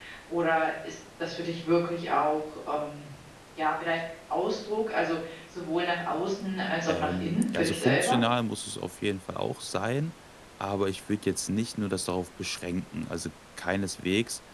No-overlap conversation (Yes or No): No